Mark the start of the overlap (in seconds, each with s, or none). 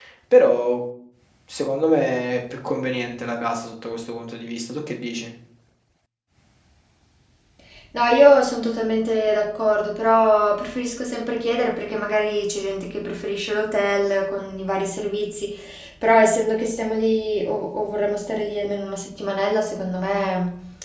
none